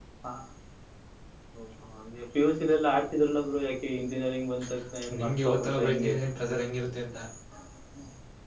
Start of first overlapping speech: 4.6 s

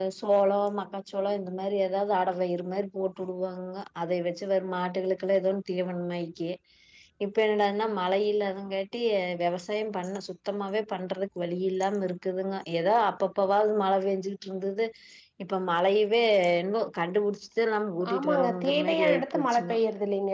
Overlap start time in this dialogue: 18.0 s

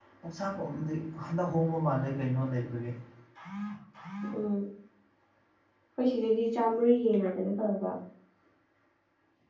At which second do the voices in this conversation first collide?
none

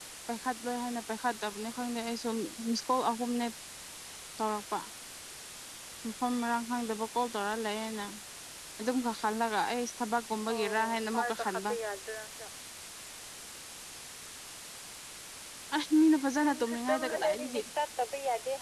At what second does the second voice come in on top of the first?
10.5 s

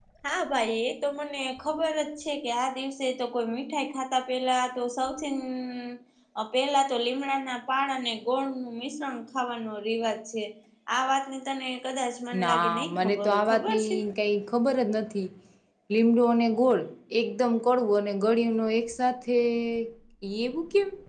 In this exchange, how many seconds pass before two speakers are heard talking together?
12.3 s

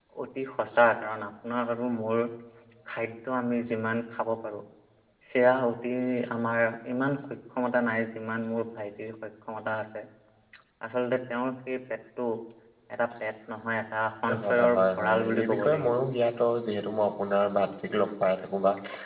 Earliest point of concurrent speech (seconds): 14.3 s

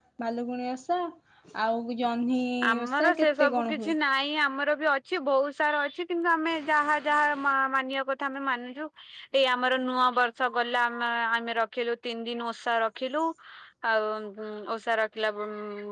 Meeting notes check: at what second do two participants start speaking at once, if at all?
2.6 s

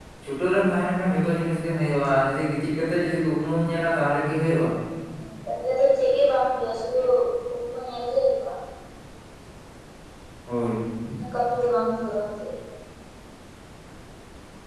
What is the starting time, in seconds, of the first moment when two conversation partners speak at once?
none

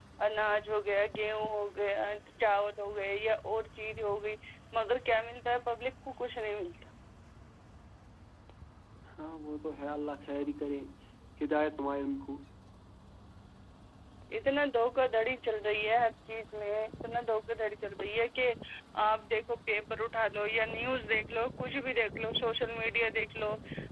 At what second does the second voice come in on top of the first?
none

